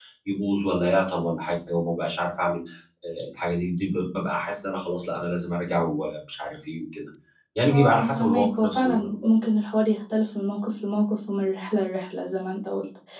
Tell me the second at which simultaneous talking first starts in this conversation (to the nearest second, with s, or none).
8 s